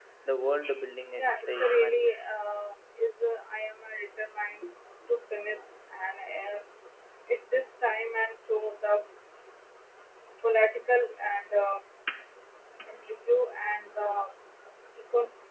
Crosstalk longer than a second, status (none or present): present